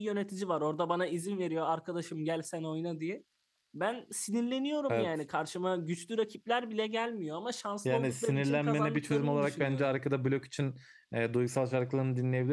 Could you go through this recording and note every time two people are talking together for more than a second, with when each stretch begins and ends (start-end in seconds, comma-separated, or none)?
7.8-9.9